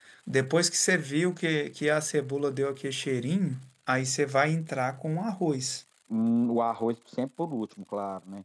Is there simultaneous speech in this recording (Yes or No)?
No